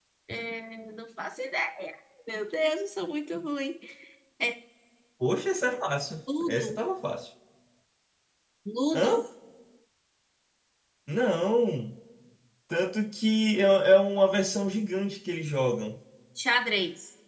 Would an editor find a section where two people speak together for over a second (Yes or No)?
No